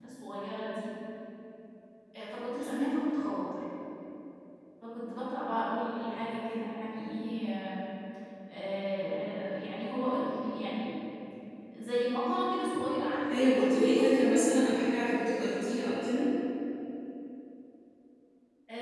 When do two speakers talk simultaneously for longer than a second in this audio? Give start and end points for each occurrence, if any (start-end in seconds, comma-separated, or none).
13.3-14.7